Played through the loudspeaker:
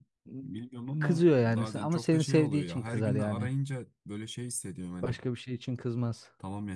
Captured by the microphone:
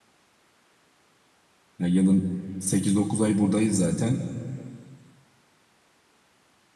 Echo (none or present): none